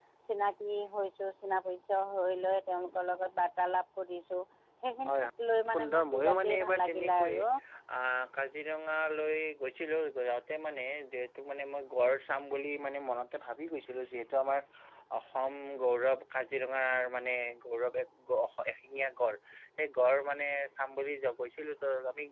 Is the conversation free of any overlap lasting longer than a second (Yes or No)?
No